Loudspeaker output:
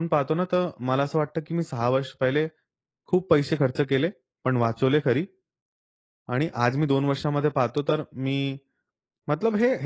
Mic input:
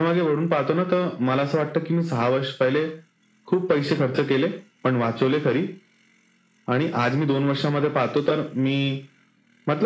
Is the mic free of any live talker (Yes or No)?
Yes